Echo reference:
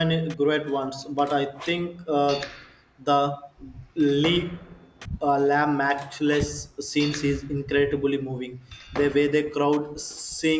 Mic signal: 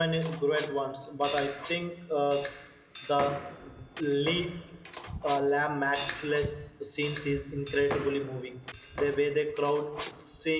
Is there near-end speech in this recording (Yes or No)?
No